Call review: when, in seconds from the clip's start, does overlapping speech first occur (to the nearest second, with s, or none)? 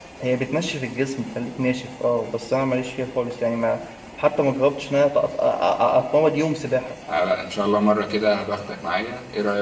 none